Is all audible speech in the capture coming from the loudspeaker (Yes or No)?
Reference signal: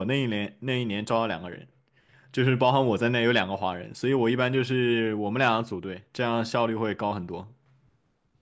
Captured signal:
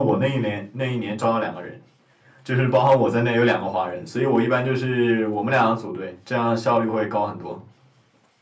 Yes